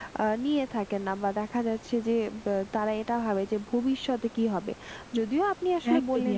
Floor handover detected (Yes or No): No